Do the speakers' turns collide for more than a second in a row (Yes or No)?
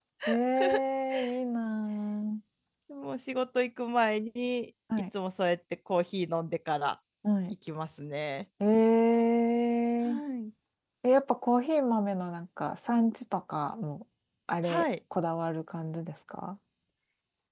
No